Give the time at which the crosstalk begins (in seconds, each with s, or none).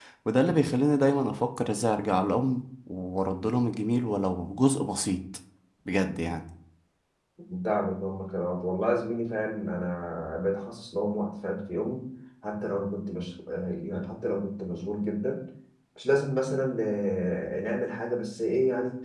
none